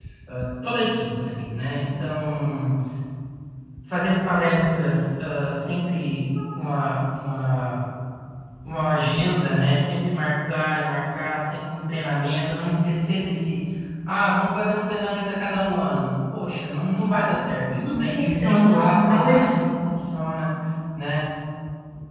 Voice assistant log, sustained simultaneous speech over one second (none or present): present